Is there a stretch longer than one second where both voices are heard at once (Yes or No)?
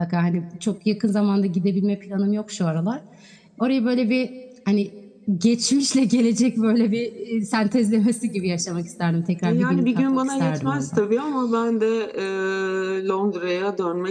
Yes